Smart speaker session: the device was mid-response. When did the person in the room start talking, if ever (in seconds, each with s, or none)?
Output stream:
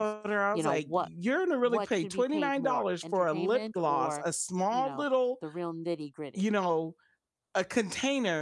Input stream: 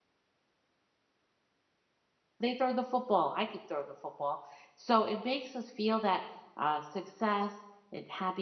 2.4 s